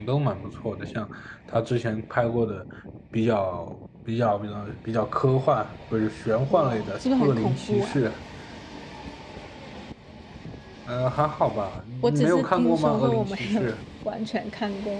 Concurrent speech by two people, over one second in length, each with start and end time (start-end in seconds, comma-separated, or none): 6.5-8.0, 12.0-13.7